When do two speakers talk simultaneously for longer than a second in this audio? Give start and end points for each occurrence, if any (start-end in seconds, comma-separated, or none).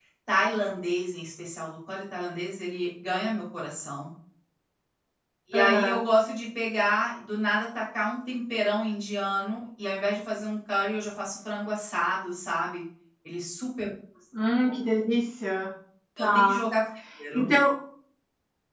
none